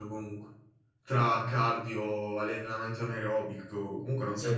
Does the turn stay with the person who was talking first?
No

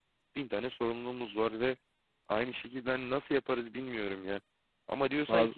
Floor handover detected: No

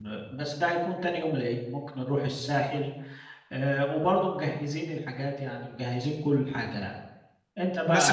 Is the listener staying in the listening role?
No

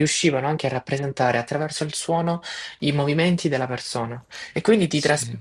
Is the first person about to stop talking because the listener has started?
No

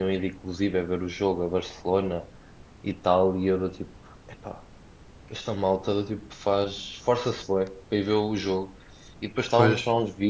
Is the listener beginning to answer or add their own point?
No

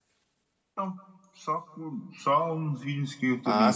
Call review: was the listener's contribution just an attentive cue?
No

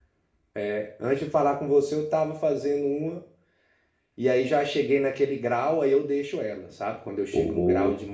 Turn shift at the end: No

